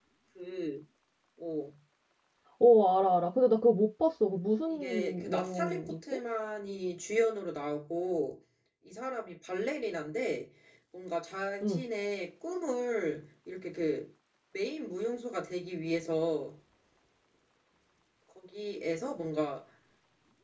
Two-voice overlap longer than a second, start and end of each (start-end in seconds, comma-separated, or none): 4.7-6.0